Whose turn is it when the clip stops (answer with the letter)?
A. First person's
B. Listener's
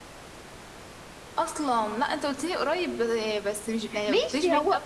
B